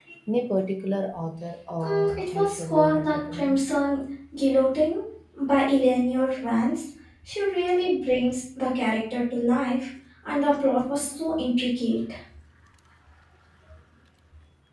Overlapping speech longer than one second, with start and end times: 1.8-3.6

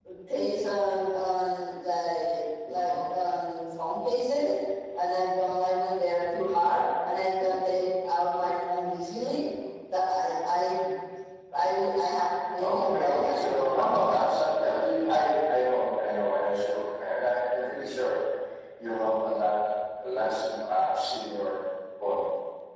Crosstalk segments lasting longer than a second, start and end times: 12.6-14.3

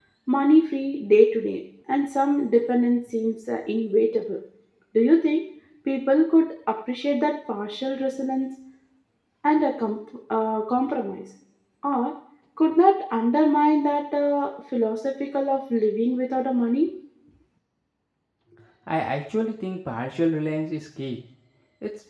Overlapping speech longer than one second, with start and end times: none

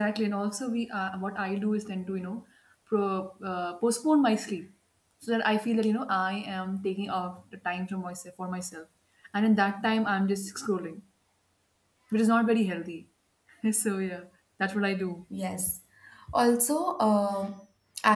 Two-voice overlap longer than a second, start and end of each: none

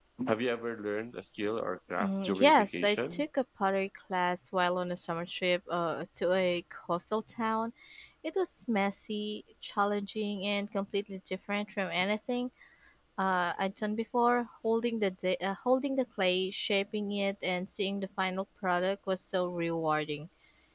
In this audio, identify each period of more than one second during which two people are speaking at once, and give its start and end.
2.0-3.2

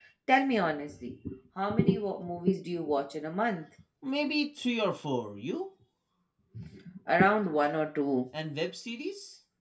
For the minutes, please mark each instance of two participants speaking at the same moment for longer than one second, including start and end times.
none

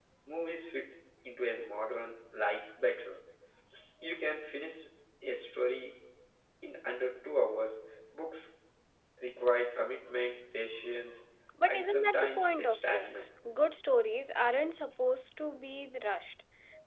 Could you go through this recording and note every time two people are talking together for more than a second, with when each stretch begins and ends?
11.7-13.3

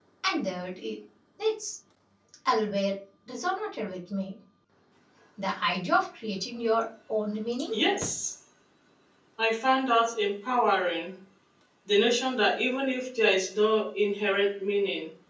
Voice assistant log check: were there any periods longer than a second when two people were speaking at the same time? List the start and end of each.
none

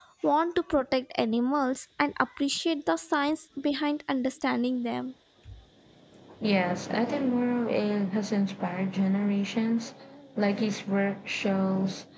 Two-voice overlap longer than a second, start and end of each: none

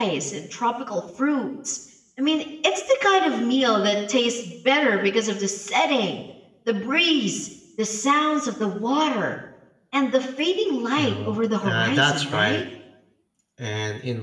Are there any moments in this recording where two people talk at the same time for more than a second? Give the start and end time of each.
11.0-12.6

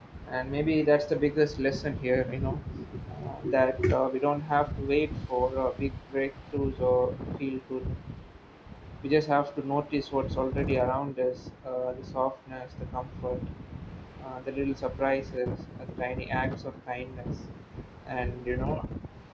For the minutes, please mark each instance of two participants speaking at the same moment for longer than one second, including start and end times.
none

